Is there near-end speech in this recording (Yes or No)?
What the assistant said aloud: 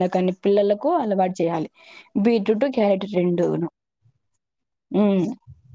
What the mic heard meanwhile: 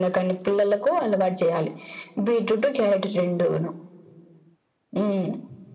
No